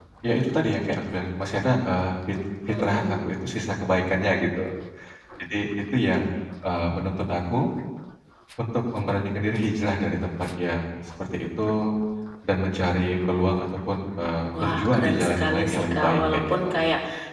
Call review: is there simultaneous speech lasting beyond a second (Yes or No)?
Yes